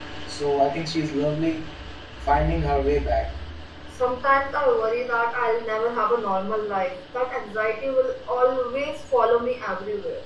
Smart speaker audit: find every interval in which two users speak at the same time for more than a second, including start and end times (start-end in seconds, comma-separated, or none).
none